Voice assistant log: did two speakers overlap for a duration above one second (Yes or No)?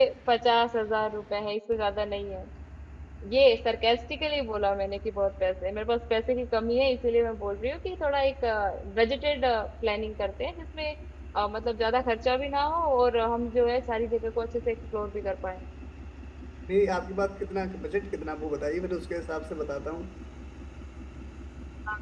No